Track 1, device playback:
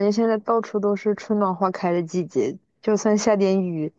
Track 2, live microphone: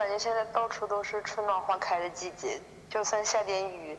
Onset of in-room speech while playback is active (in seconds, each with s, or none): none